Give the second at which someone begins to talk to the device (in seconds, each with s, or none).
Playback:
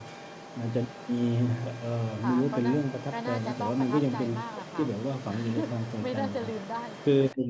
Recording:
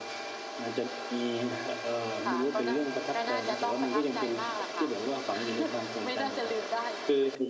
none